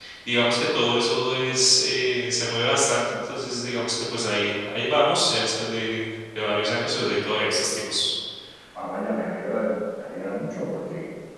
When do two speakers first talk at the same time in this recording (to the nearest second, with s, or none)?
none